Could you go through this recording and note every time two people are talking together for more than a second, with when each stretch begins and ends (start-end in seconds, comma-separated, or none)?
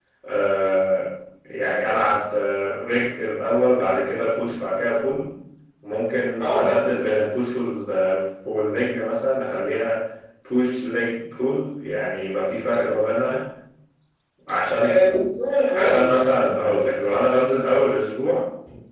none